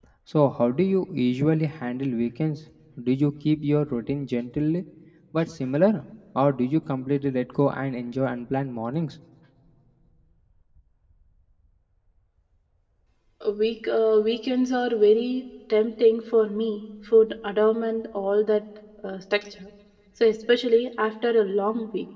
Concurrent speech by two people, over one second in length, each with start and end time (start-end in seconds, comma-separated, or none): none